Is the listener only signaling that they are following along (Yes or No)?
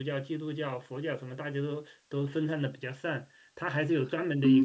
No